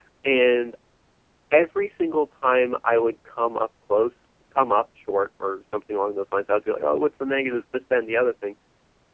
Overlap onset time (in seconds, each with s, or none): none